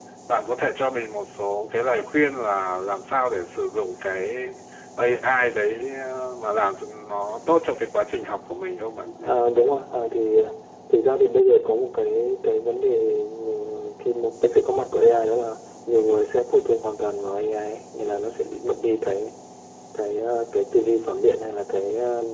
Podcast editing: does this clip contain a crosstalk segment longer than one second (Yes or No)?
No